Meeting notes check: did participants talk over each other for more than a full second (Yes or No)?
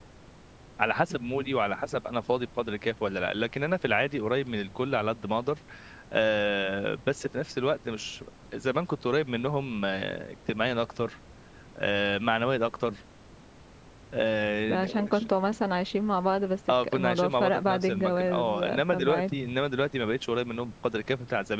Yes